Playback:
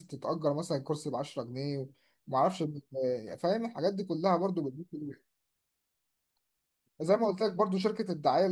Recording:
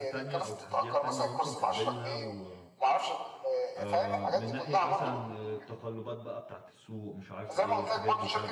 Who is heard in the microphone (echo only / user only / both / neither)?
both